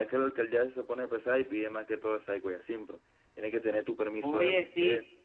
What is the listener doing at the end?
taking over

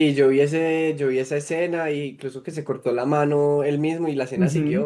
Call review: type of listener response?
taking over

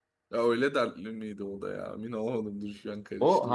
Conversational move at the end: taking over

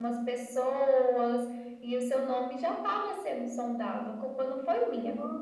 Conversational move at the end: taking over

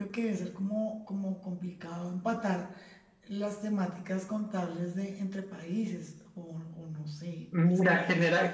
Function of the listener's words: taking over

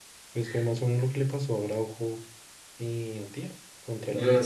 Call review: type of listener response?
taking over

